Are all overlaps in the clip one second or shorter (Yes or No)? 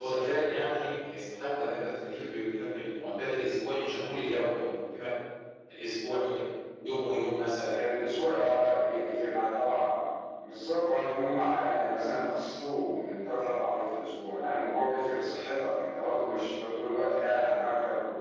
Yes